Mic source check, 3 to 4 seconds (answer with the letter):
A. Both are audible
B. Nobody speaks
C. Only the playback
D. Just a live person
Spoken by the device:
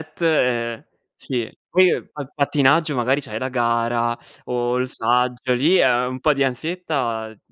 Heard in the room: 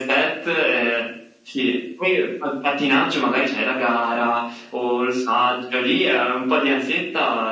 C